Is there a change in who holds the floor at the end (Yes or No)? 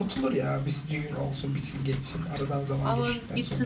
Yes